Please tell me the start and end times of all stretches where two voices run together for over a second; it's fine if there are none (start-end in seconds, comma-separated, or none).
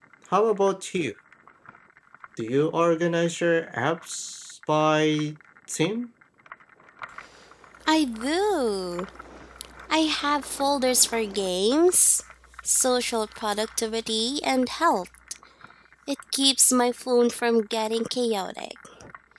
none